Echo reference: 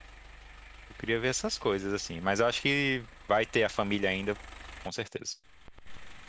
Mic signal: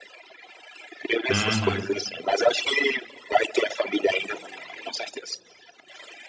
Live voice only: Uhum.

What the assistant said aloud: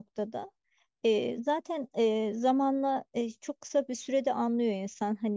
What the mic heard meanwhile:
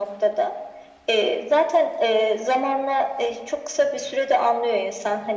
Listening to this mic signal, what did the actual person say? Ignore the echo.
none

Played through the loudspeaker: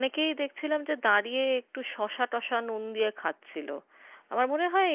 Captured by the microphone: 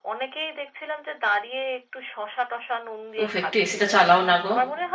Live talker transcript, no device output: উফ একটু এসিটা চালাও না গো

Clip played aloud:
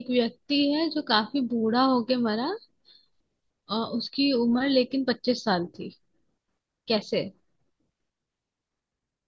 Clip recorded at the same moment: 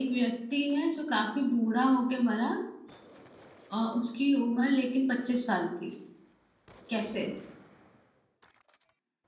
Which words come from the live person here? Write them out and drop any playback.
none

